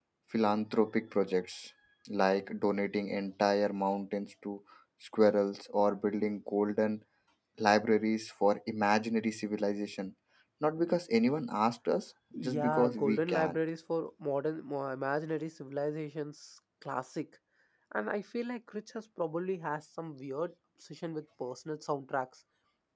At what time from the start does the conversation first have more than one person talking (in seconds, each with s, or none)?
12.3 s